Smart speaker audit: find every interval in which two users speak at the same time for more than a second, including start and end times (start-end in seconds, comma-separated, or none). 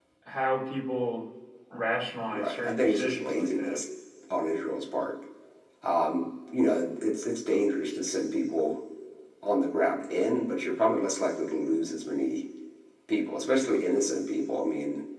2.3-3.8